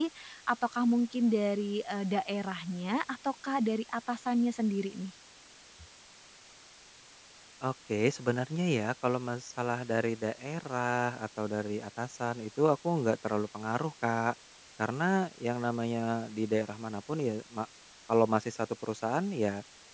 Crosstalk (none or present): none